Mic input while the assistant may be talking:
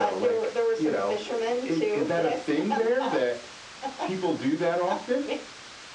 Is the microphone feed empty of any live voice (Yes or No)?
Yes